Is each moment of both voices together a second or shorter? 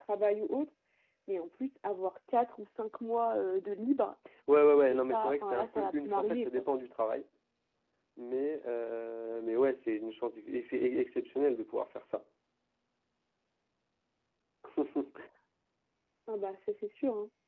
No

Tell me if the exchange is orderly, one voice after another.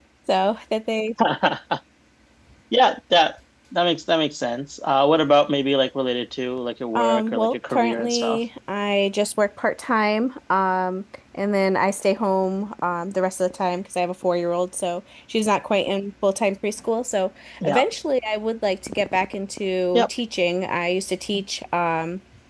No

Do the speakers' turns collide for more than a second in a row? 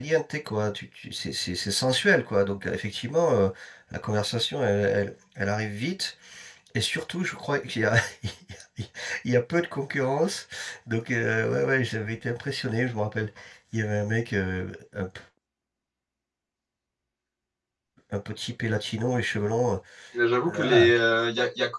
No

